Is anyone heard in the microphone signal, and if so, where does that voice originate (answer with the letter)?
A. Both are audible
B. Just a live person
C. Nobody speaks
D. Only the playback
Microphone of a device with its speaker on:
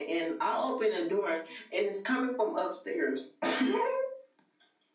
D